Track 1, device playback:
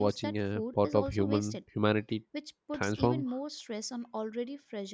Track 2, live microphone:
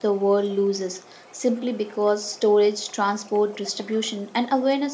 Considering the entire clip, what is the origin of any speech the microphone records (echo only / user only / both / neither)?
user only